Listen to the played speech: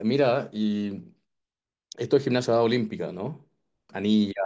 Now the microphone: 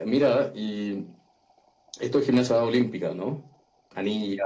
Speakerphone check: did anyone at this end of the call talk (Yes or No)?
No